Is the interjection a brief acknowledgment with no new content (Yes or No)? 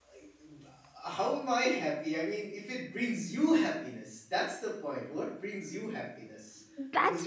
No